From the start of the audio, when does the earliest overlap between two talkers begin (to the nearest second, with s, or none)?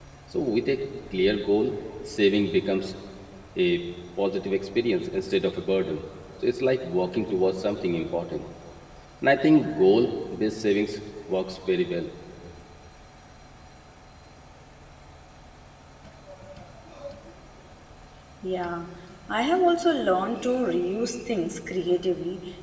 none